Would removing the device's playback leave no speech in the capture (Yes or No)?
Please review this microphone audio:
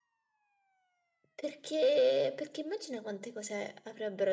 Yes